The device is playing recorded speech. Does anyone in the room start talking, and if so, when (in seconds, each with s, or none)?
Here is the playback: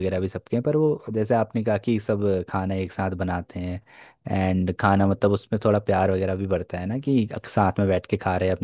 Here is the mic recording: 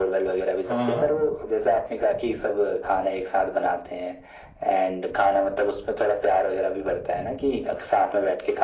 0.7 s